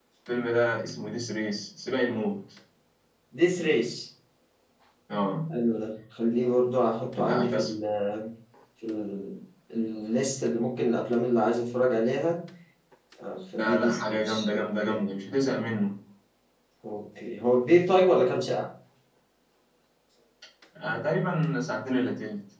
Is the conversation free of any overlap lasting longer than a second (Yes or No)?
No